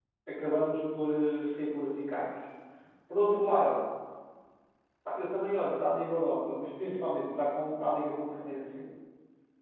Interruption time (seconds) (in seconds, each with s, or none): none